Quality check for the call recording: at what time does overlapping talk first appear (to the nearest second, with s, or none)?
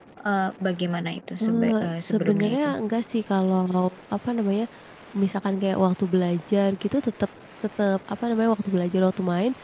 1 s